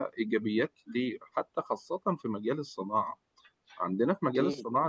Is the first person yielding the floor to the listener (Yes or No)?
No